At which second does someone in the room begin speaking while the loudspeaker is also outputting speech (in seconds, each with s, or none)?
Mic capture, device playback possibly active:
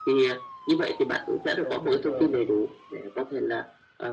1.6 s